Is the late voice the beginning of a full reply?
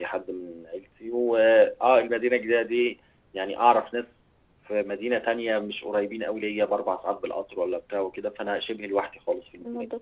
Yes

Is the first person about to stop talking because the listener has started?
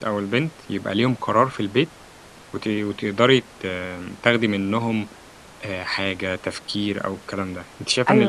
No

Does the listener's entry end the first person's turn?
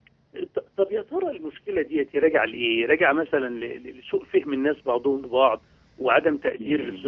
No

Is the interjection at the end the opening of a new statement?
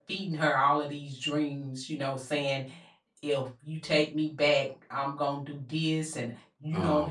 No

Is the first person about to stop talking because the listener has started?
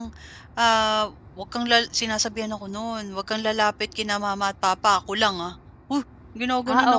Yes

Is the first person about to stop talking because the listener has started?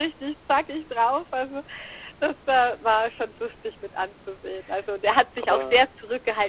No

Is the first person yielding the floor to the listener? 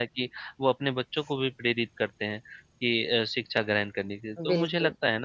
No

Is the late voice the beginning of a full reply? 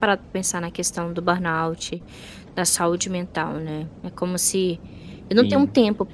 No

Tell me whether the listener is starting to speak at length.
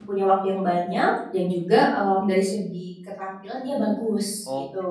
Yes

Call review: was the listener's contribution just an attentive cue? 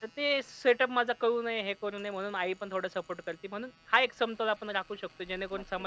No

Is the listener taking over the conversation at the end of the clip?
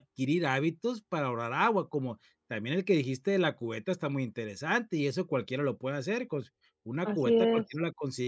No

